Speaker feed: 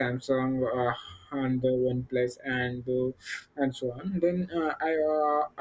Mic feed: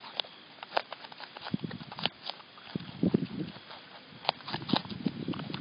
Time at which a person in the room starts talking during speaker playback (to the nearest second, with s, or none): none